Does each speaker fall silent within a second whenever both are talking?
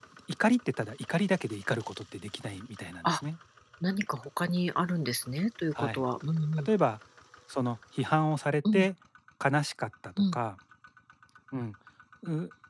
Yes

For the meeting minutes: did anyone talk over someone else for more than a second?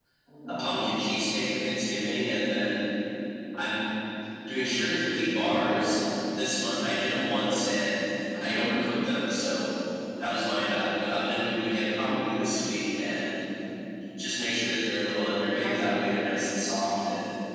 No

